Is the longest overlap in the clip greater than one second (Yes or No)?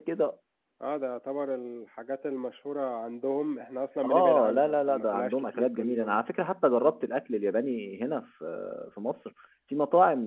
Yes